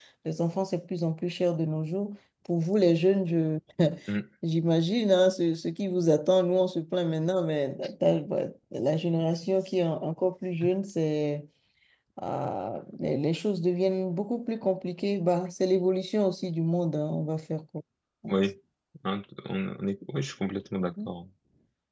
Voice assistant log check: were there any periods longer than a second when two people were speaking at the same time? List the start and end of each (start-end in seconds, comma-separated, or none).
none